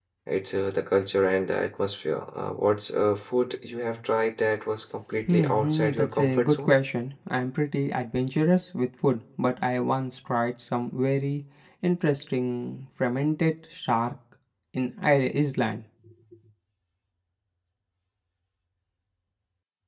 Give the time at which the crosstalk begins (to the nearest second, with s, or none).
5 s